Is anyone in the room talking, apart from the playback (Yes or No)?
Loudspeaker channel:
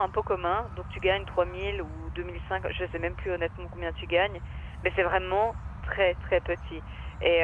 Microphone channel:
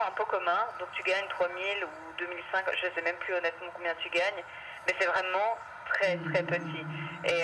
Yes